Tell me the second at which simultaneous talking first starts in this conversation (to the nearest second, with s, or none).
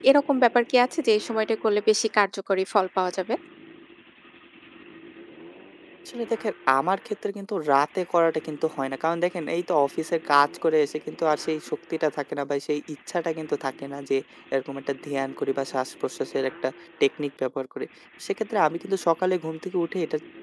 none